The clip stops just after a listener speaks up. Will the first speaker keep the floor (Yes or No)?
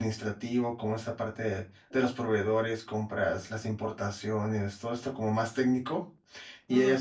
Yes